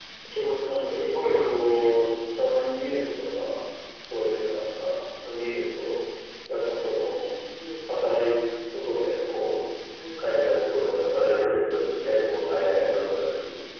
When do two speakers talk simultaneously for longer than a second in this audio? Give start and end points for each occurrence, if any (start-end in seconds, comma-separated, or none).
0.6-1.9